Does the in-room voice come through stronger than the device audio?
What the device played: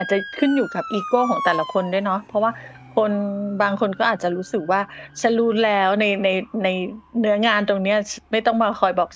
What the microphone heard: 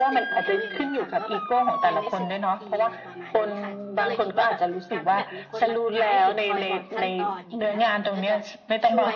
No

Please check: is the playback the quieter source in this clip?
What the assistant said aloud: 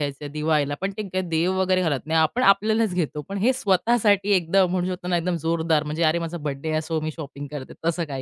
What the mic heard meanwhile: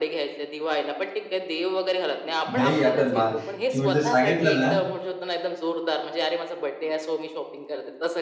Yes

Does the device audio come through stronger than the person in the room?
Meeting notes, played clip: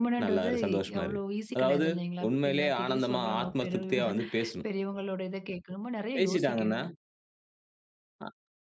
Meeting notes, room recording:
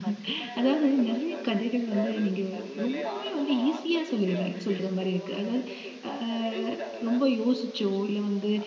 No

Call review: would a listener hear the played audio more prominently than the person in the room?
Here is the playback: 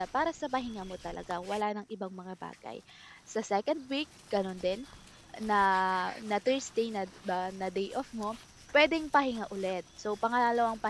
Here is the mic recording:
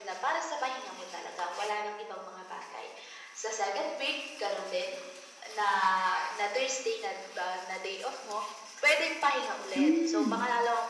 No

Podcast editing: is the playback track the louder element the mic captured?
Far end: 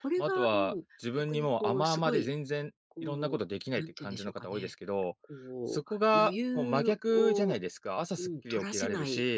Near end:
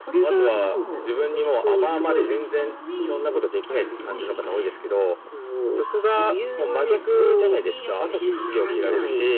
Yes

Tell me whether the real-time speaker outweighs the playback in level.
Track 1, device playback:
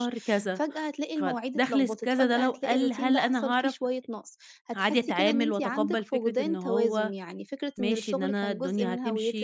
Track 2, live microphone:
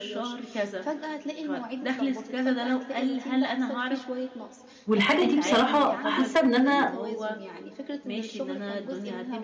Yes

